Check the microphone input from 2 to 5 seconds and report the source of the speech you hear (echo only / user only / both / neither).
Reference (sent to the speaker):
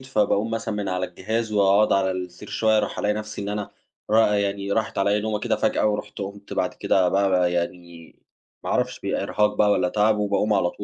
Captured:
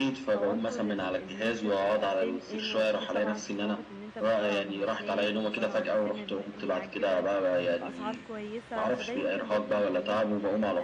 both